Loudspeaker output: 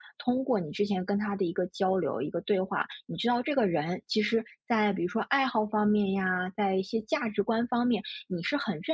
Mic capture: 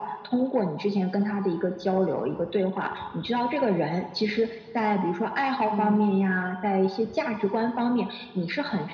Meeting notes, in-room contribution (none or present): present